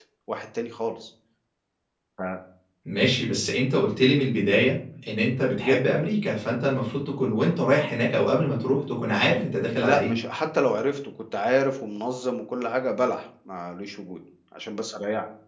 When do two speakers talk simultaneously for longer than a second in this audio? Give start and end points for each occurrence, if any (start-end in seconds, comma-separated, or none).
none